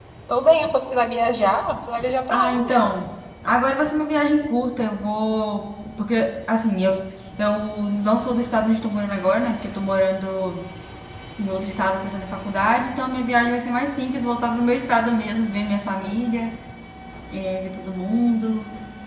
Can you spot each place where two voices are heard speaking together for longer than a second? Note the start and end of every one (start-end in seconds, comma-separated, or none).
none